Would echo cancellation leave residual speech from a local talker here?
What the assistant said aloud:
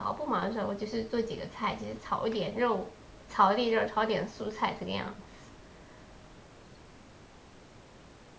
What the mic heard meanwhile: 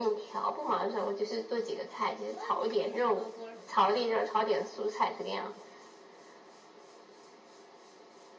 Yes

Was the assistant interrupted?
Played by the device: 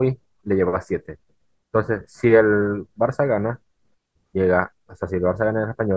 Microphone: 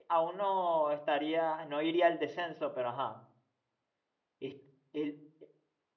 Yes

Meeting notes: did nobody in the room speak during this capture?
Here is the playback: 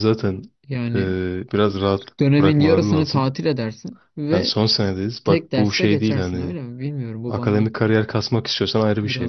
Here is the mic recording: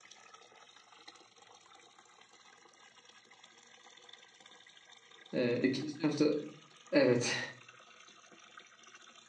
No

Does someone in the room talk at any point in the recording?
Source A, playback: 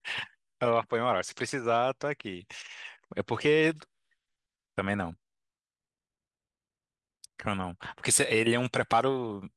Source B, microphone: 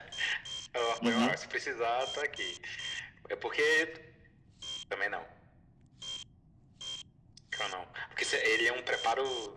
Yes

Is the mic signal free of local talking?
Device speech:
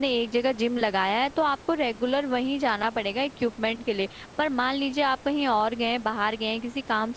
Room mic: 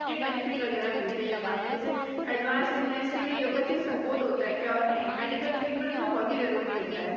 No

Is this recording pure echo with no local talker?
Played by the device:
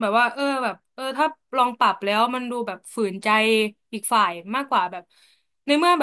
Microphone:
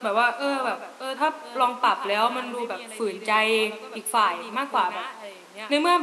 No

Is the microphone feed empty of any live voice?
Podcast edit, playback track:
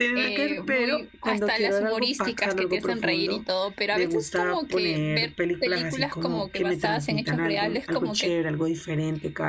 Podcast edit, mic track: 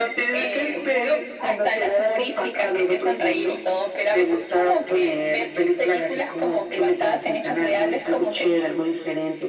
Yes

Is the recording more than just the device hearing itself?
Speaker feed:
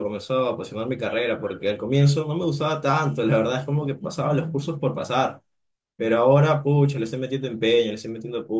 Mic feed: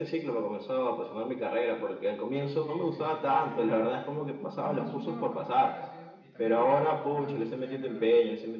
Yes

